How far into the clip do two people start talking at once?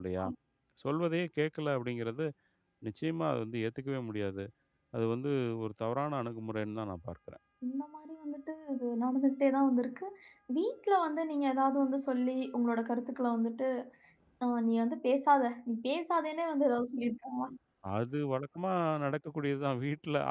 none

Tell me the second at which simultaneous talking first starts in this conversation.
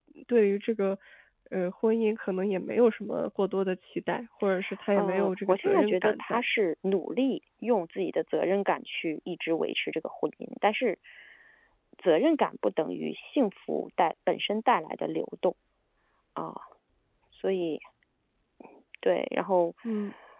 5.0 s

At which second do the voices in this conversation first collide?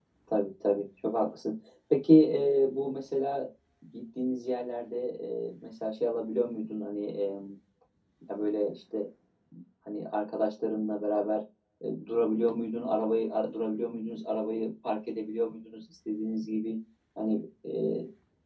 none

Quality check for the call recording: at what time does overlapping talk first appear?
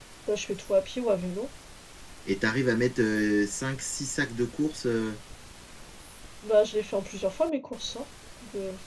none

